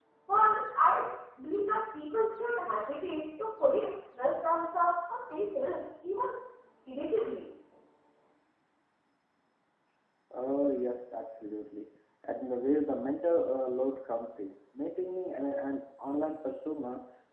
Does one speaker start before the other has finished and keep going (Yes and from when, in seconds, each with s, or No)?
No